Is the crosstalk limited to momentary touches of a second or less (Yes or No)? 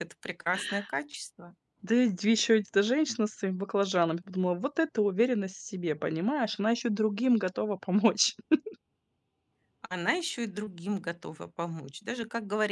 Yes